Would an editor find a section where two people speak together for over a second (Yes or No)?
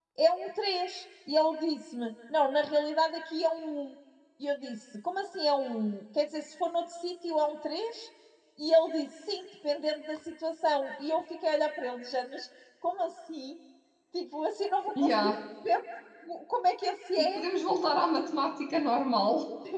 No